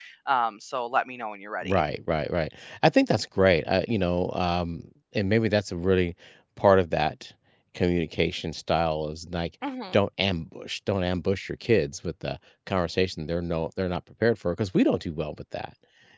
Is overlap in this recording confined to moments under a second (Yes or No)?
Yes